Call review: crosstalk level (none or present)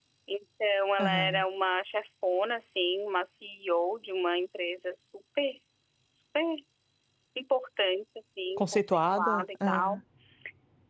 present